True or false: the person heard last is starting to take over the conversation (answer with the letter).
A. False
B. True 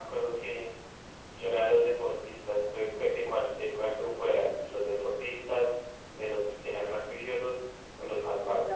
B